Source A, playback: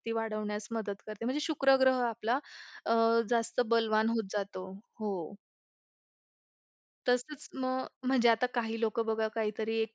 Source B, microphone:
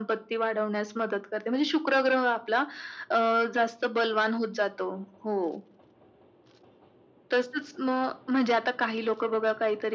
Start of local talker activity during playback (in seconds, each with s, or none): none